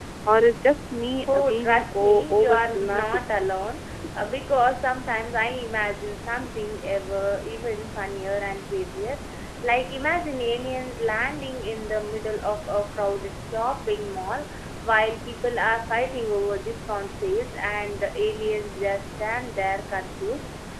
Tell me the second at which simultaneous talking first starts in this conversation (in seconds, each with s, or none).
1.3 s